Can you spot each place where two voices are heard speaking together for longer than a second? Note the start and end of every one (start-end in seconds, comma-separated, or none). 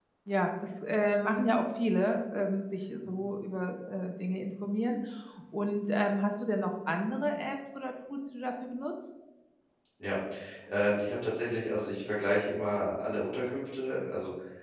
none